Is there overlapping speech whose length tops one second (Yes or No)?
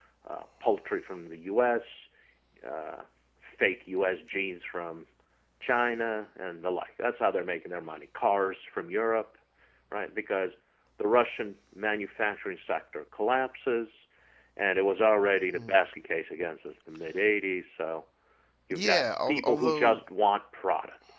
Yes